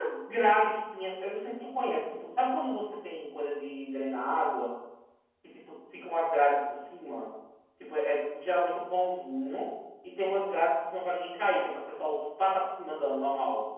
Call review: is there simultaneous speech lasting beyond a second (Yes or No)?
No